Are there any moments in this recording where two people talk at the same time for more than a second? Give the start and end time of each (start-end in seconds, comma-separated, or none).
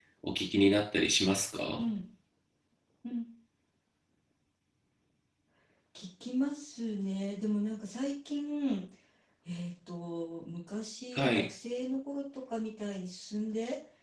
none